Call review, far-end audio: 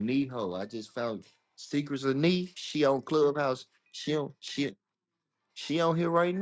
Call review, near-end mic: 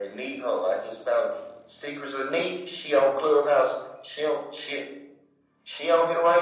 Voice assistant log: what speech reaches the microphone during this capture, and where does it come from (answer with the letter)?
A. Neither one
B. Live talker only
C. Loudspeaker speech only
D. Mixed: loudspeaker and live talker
C